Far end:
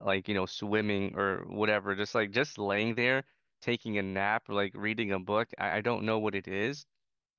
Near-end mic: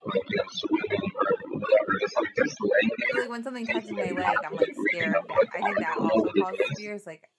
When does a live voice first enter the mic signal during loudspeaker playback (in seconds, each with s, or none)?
3.1 s